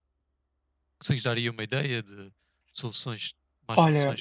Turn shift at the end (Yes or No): Yes